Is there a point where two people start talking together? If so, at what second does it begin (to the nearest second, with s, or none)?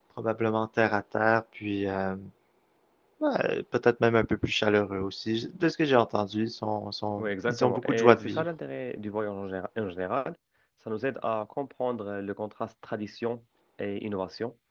7 s